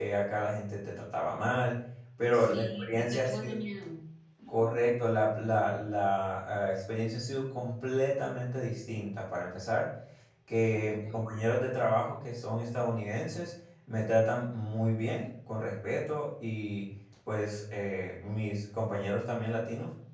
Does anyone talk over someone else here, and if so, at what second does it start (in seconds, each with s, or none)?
2.3 s